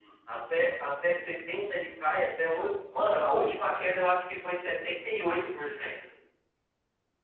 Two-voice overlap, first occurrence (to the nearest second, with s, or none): none